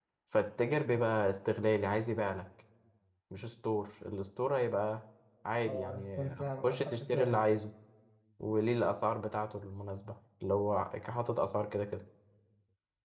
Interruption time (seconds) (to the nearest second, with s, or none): 6 s